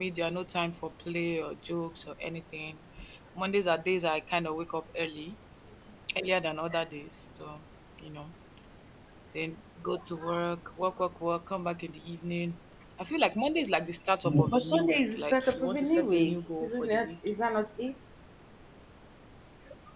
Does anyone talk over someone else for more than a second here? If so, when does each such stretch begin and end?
14.2-17.1

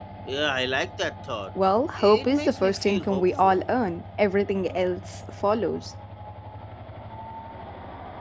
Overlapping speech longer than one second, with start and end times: 2.0-3.7

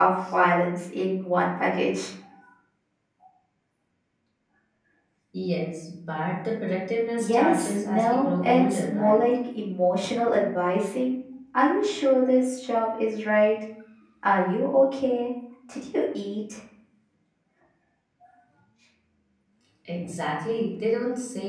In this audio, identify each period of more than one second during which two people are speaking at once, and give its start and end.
7.2-9.3

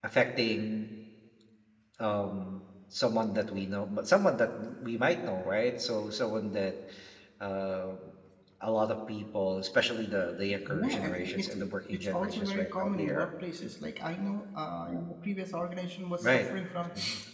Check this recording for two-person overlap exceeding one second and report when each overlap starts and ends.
10.5-13.3

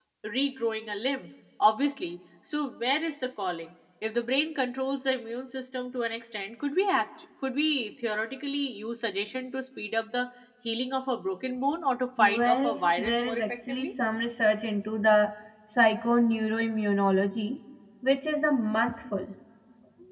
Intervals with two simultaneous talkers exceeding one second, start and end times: 12.2-13.9

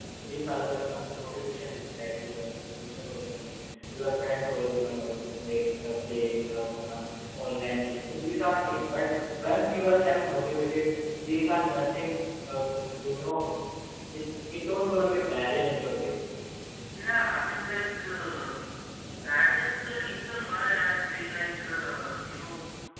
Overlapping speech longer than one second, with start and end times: none

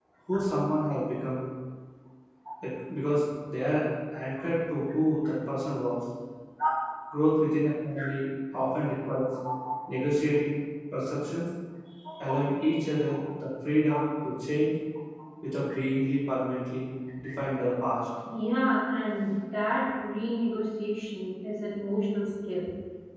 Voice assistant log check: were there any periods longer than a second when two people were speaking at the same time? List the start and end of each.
none

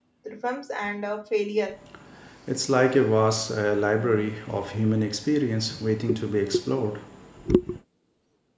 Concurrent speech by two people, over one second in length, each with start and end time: none

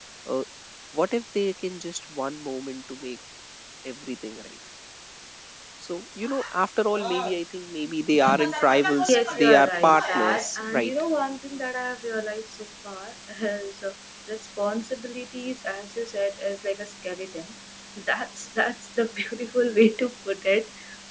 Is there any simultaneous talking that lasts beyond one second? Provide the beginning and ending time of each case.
9.1-10.9

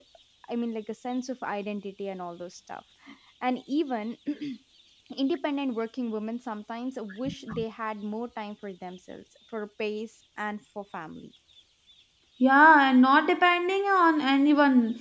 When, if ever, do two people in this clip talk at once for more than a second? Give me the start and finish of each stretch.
none

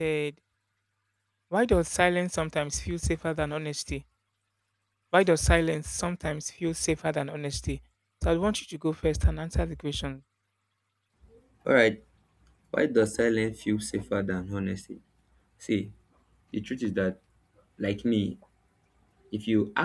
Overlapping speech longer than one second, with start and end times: none

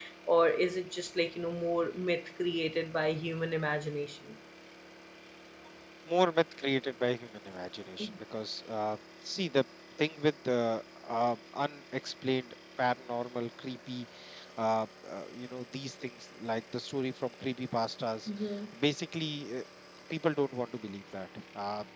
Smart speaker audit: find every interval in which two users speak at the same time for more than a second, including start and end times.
none

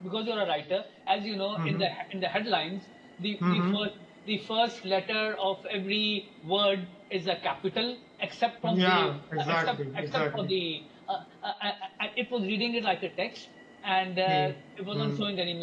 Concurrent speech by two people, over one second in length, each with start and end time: 8.7-10.5

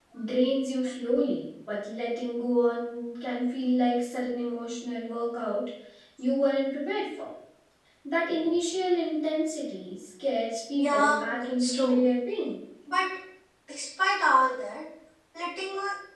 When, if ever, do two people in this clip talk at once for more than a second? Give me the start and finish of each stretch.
10.8-12.0

